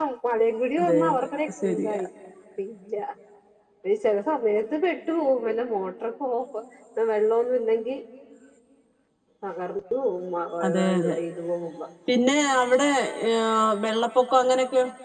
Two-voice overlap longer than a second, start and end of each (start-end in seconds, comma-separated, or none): 0.8-2.0